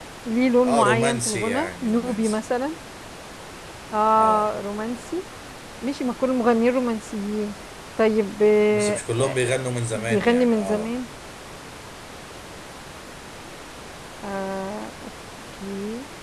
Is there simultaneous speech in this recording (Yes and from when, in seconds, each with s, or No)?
Yes, from 0.7 s